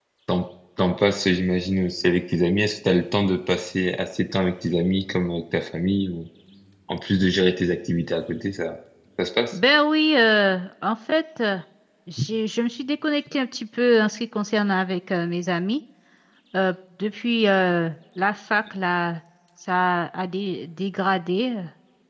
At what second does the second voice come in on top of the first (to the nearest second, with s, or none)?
none